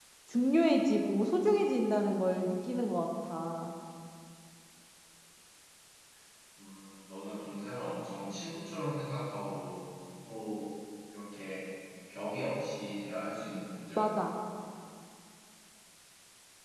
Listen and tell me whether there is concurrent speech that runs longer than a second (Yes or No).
No